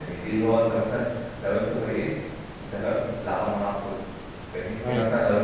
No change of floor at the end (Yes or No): Yes